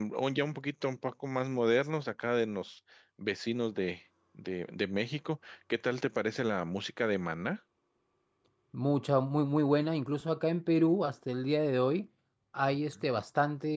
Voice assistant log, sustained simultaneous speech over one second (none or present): none